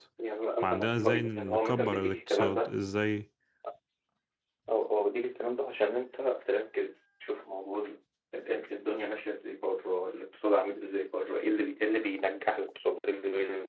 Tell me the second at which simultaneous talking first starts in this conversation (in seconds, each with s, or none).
0.6 s